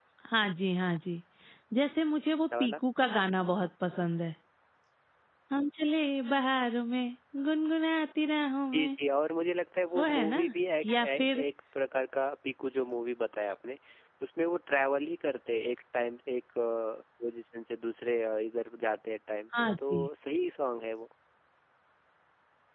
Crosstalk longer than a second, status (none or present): none